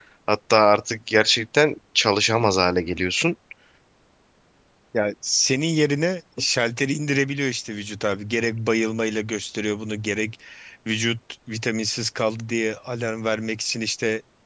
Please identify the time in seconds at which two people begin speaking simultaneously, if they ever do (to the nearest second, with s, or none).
none